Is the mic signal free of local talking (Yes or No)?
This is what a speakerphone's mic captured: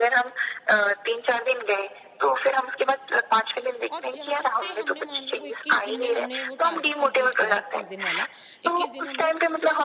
No